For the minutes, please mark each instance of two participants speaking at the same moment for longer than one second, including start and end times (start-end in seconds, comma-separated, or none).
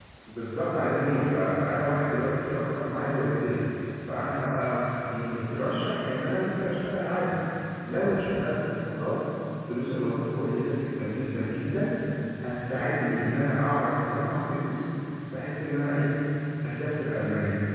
none